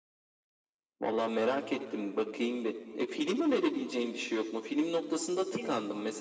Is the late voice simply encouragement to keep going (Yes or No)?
Yes